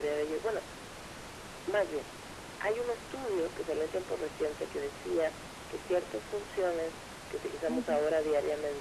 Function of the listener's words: listening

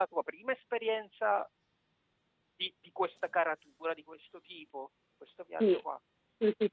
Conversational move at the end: taking over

